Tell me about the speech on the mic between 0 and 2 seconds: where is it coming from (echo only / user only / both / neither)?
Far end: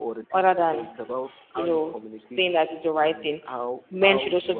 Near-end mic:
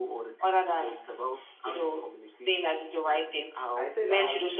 echo only